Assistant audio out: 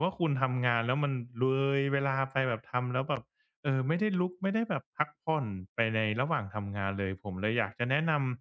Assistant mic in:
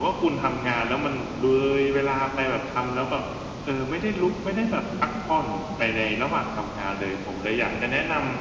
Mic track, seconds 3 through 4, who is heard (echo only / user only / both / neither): echo only